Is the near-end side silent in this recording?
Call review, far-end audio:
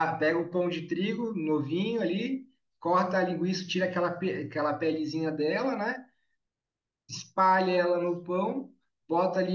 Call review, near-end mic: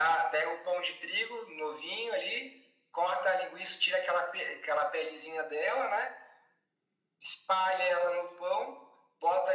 Yes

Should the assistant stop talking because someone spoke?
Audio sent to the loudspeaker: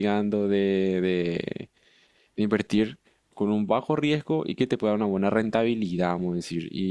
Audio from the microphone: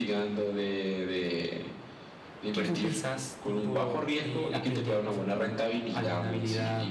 Yes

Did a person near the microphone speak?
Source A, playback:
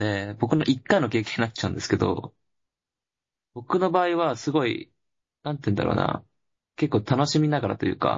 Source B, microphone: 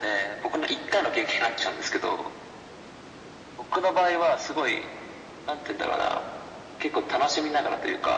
No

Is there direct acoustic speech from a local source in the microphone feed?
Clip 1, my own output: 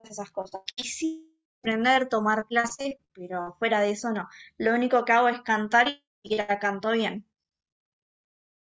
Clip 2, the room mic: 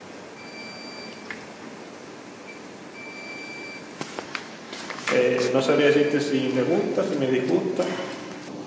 Yes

